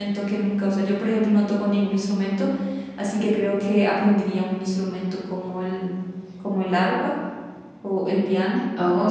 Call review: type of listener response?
taking over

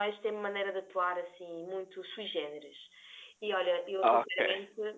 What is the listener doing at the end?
listening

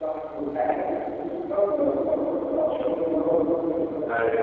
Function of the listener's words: taking over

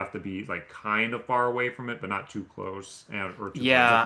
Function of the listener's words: taking over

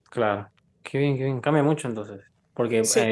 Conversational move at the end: listening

